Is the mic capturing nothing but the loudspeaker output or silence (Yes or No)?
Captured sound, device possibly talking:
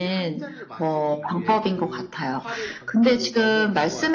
No